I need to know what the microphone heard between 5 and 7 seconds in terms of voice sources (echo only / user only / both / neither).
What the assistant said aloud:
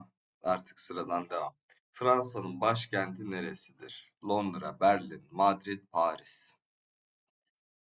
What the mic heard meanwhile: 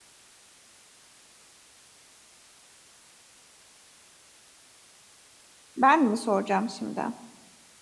user only